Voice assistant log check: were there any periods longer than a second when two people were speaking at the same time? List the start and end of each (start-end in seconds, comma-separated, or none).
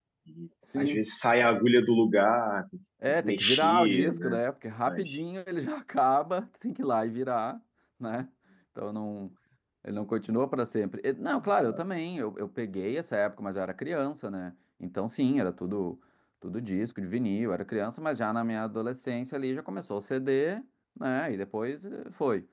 3.1-4.4